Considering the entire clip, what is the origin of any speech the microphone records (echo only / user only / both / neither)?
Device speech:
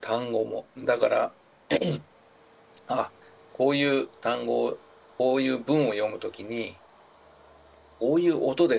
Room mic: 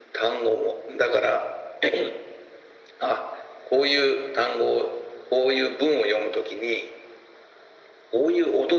echo only